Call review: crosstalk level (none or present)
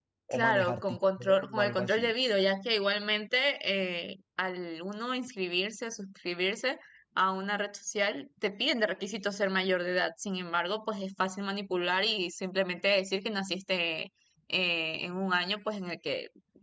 present